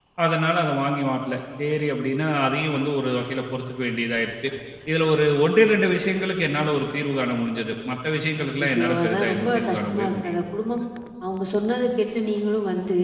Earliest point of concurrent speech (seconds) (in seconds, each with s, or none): 8.4 s